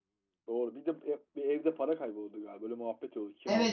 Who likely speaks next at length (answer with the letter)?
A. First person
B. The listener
B